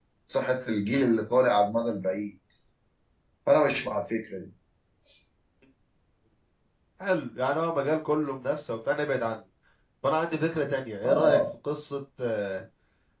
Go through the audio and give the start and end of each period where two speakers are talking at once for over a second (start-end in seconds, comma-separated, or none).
none